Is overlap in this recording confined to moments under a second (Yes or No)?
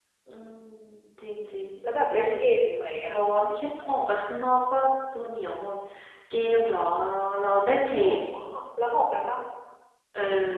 Yes